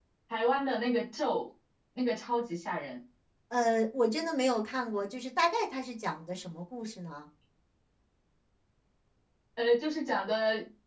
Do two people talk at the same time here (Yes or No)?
No